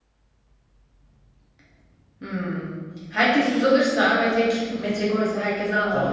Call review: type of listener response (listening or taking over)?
taking over